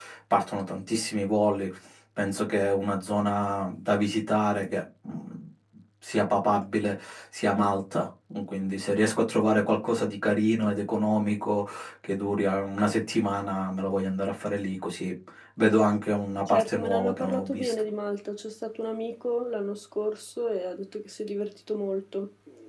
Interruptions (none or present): present